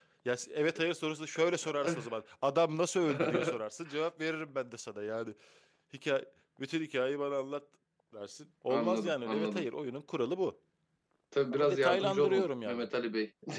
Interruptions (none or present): present